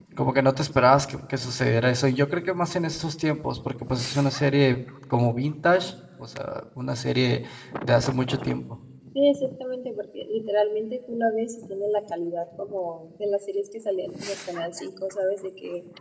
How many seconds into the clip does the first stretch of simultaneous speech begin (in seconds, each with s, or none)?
none